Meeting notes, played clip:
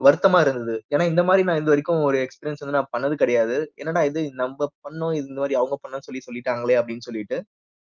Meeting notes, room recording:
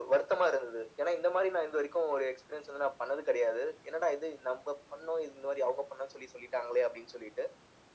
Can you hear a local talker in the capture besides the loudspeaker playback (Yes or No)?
No